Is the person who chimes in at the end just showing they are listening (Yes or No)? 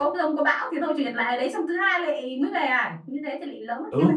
No